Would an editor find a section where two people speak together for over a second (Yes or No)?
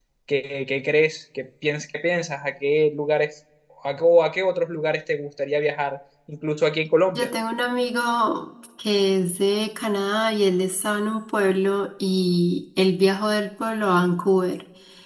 No